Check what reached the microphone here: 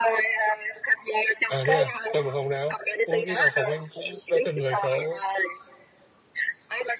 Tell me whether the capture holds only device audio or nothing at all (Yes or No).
No